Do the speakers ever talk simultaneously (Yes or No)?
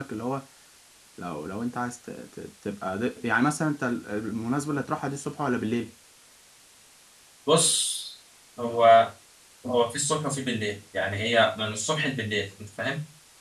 No